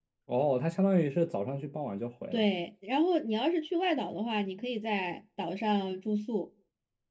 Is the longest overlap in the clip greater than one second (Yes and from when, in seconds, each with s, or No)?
No